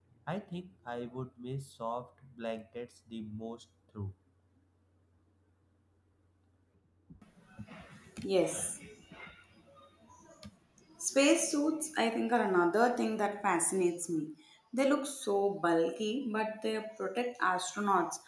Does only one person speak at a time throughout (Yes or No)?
Yes